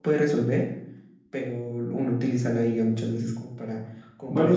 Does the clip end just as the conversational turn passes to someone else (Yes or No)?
No